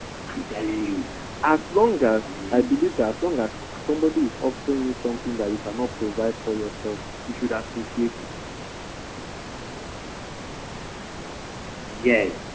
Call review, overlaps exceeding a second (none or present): none